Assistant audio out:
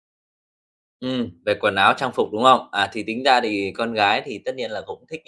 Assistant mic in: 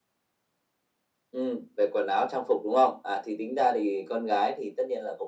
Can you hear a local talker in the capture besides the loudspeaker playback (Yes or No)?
No